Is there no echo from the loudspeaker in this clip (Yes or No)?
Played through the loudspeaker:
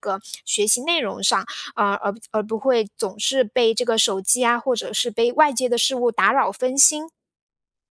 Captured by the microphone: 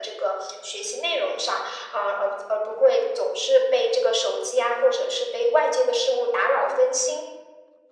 No